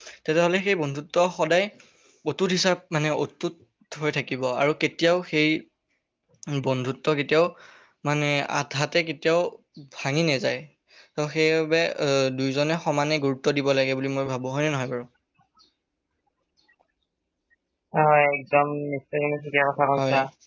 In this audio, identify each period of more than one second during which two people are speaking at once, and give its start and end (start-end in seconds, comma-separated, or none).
none